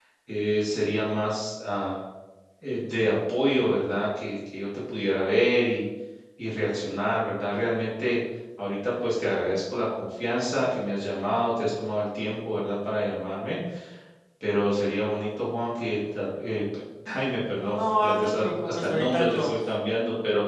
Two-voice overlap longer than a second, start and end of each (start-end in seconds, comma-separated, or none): 17.8-19.5